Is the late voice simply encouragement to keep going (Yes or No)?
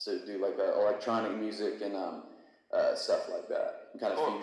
No